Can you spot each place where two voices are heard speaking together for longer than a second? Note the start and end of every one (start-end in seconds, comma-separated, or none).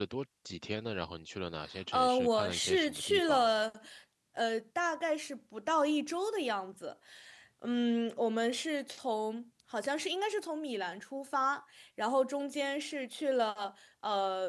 1.9-3.5